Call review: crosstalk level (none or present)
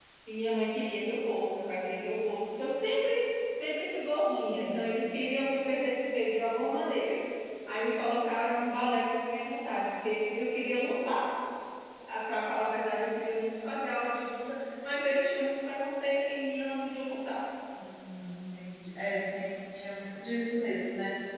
none